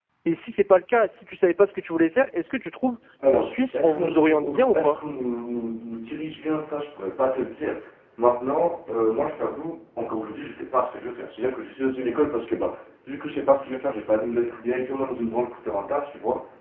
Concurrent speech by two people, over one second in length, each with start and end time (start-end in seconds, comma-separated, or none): 3.7-5.0